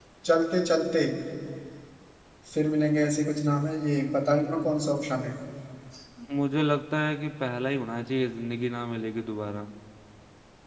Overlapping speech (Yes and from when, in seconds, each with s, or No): No